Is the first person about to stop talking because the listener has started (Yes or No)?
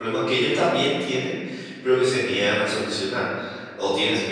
No